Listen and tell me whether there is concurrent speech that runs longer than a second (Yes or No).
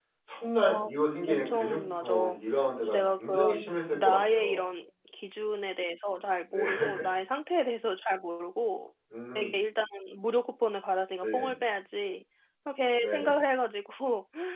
Yes